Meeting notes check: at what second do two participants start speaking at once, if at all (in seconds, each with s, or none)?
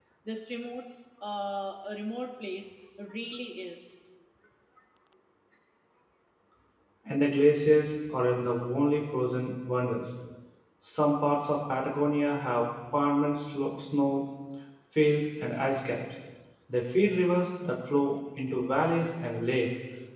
none